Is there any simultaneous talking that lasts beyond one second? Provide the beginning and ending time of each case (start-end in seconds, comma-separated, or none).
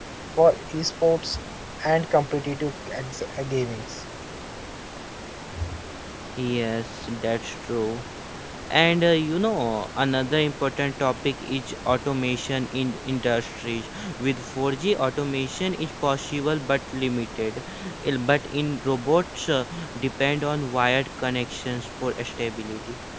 none